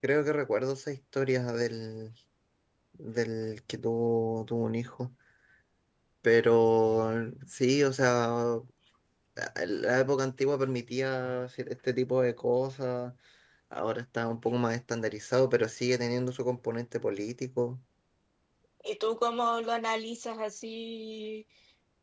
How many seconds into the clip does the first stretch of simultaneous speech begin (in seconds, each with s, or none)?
none